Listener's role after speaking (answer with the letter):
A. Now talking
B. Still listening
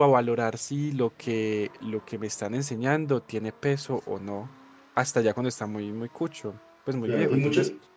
A